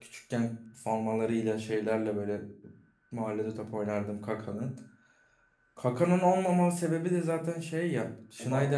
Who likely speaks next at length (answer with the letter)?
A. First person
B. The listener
A